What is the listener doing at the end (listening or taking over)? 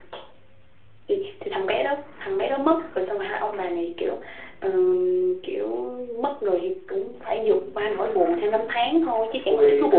taking over